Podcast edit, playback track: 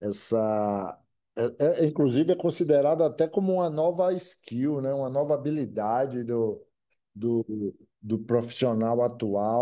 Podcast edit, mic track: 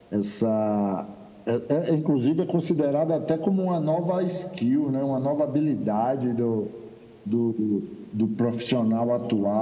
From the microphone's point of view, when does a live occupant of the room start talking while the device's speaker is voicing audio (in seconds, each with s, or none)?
none